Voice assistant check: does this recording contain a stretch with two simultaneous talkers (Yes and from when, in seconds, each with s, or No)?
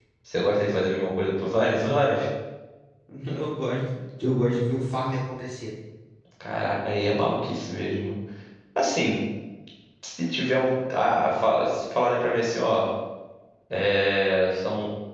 No